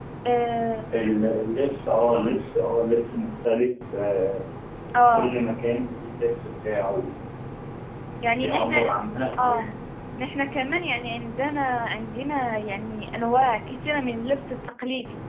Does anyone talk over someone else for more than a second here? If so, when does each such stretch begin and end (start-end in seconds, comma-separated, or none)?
none